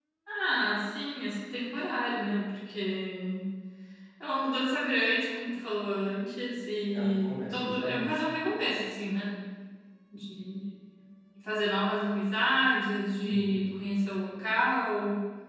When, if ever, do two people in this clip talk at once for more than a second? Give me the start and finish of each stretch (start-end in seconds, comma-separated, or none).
6.9-8.2